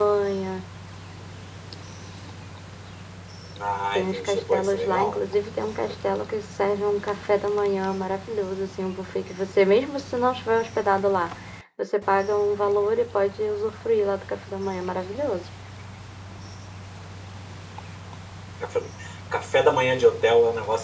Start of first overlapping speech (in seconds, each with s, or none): 4.0 s